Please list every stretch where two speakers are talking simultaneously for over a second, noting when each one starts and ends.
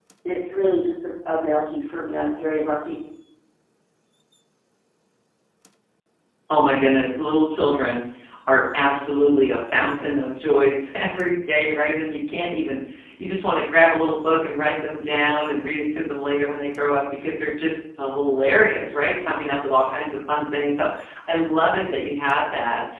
none

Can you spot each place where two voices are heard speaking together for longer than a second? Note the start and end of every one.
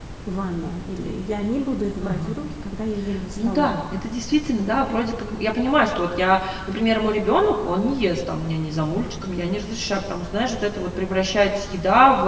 none

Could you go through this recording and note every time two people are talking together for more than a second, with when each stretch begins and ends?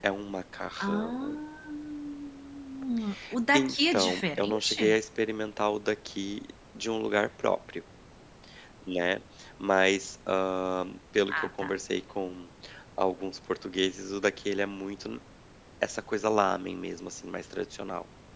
3.5-5.0

